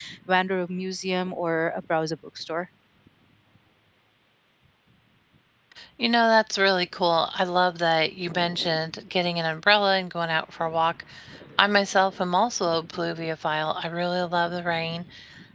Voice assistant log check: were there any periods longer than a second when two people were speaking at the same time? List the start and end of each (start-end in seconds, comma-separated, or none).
none